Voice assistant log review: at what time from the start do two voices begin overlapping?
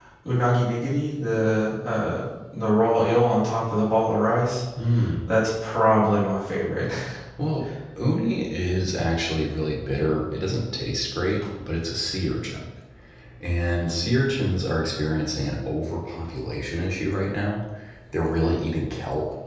none

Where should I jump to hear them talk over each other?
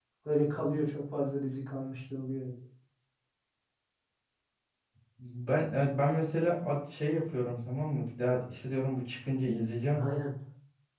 none

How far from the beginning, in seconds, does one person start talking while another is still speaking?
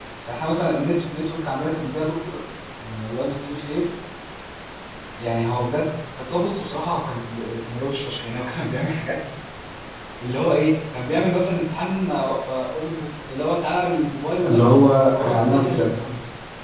14.4 s

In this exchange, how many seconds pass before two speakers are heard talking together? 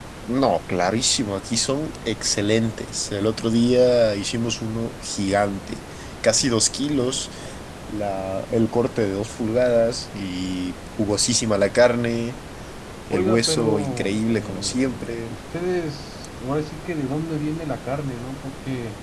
13.1 s

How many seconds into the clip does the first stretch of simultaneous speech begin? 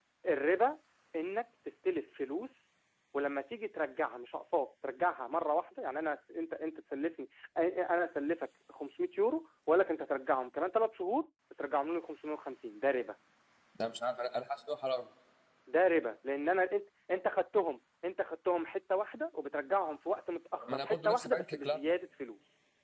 20.6 s

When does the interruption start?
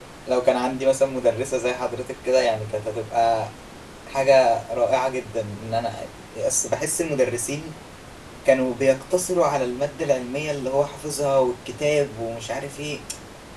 none

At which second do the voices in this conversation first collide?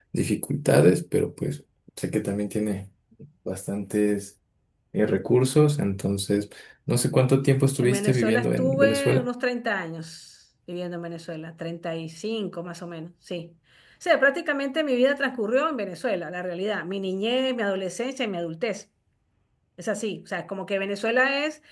7.8 s

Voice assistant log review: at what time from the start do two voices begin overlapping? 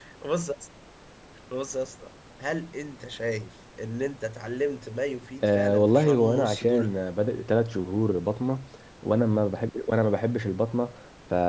5.4 s

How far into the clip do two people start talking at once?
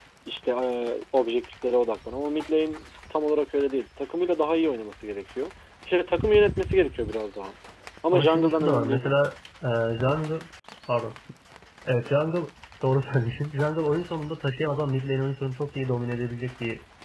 8.1 s

